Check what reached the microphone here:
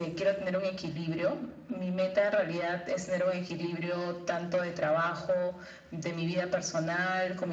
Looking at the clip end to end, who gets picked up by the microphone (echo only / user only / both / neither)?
echo only